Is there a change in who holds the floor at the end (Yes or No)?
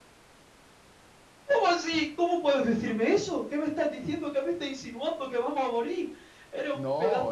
Yes